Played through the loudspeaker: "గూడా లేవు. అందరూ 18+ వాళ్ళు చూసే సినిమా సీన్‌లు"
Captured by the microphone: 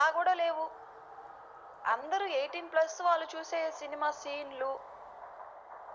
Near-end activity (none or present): none